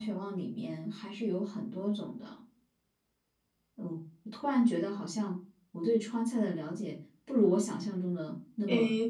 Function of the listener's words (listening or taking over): taking over